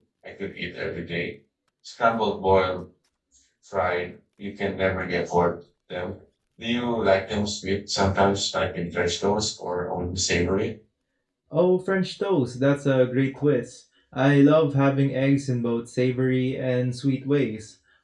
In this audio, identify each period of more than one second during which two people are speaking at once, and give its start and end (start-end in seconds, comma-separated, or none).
none